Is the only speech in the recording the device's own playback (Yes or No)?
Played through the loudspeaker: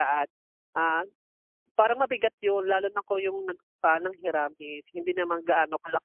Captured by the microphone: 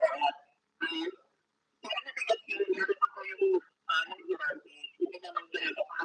Yes